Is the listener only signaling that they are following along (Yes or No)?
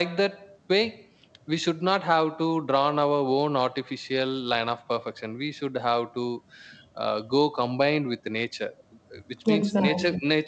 Yes